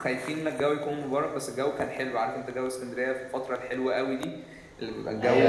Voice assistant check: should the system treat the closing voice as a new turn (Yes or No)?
Yes